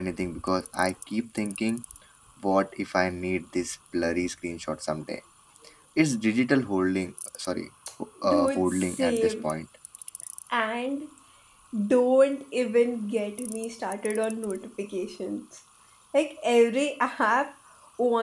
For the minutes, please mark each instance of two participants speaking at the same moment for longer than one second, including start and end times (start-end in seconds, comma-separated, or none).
8.3-9.5